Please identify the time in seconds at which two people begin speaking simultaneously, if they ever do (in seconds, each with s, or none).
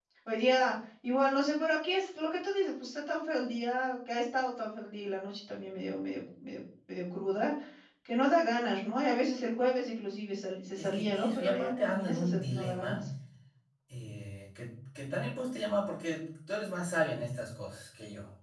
10.8 s